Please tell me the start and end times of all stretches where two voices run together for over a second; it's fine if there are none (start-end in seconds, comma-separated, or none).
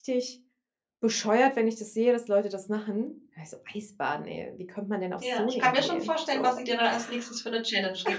5.2-6.5